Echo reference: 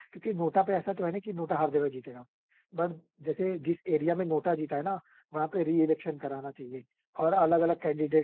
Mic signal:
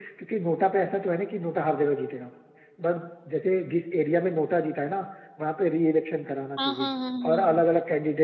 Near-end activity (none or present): present